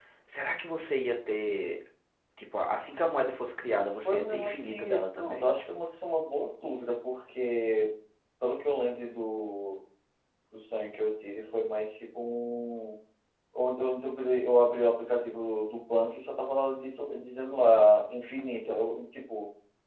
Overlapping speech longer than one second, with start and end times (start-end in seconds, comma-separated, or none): 4.0-5.5